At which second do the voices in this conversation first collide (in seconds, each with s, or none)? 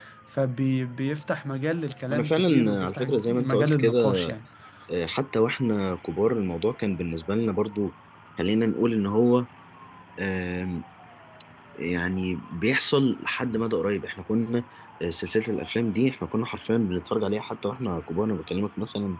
2.1 s